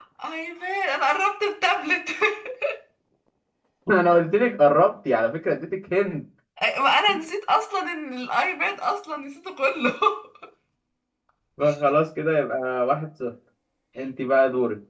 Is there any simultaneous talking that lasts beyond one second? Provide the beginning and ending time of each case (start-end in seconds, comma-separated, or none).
none